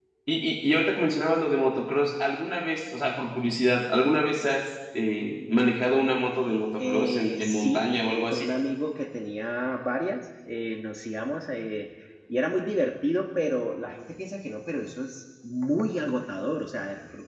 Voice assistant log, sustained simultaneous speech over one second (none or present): present